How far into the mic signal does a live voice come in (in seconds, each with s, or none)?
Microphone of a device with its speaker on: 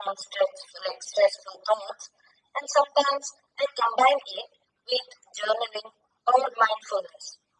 none